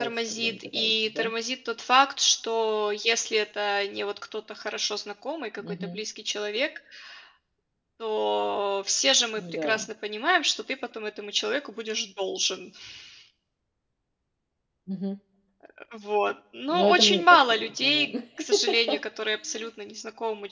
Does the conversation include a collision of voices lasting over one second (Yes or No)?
Yes